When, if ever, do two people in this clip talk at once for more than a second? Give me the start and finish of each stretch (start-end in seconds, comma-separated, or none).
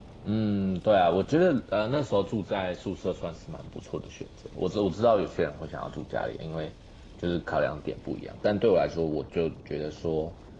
none